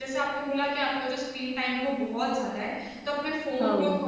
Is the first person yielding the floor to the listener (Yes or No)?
No